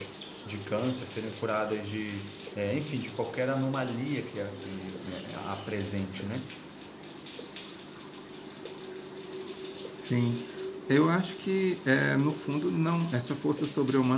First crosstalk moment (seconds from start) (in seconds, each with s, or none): none